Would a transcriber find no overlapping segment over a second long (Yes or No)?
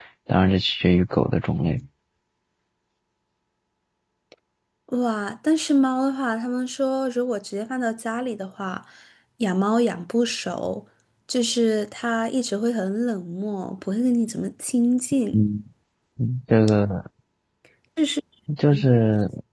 Yes